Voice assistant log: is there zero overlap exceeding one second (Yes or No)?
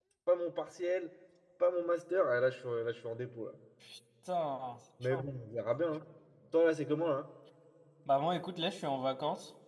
Yes